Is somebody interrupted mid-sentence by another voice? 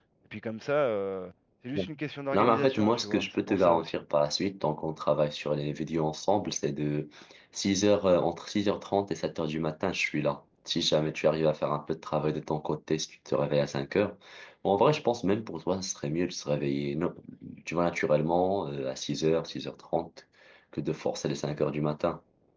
Yes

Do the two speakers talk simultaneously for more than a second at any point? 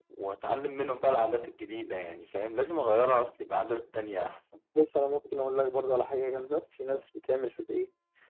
No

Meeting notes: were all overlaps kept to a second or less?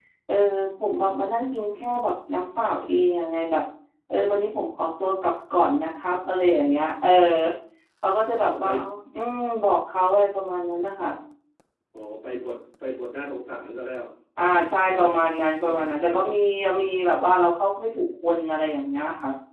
Yes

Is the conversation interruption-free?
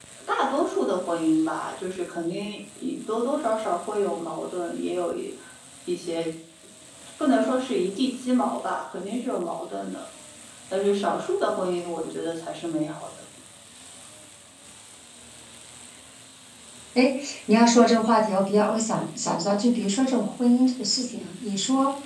Yes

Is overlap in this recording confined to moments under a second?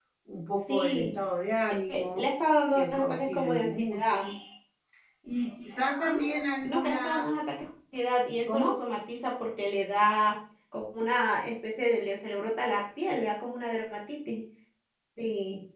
No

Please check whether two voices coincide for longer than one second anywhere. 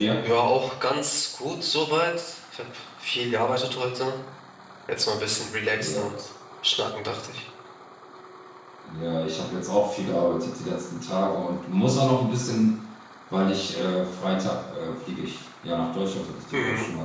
No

